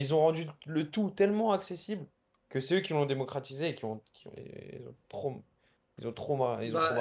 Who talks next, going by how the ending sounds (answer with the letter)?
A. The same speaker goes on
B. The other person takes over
B